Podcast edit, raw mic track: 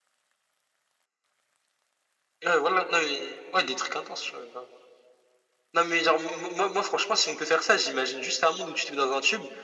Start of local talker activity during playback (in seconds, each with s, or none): none